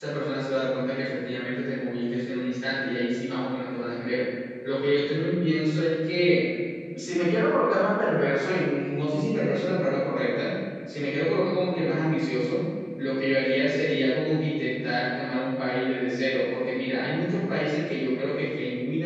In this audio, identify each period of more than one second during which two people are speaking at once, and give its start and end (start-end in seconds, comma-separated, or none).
none